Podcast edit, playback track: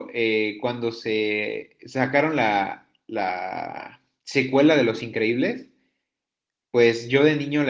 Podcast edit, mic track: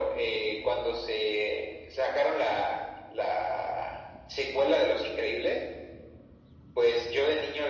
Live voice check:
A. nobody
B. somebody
A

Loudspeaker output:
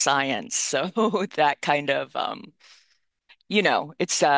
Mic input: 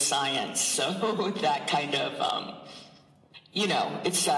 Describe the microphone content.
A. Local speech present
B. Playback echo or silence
B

